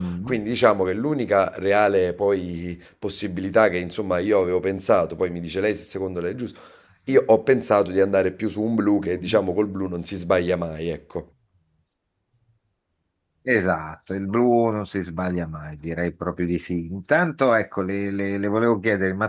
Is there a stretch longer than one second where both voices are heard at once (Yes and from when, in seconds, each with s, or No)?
No